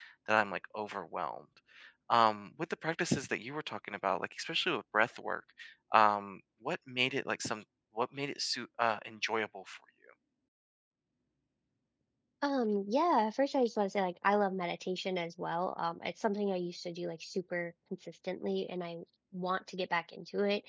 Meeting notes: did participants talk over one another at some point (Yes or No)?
No